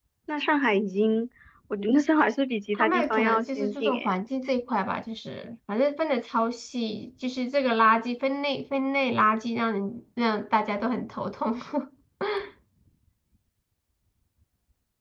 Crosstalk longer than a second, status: present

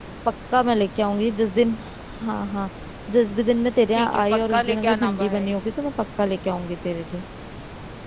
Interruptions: present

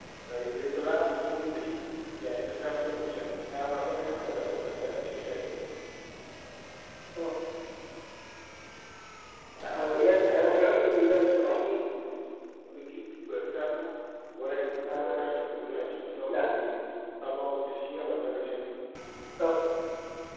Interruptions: present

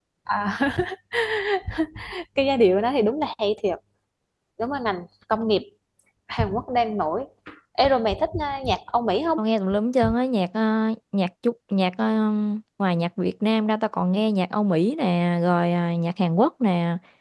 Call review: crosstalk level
none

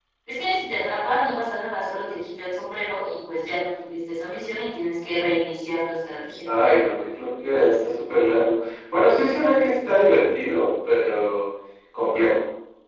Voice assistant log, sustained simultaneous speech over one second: none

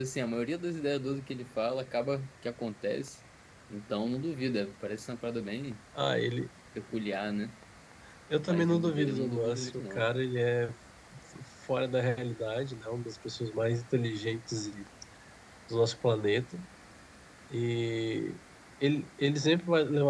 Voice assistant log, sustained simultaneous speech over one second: present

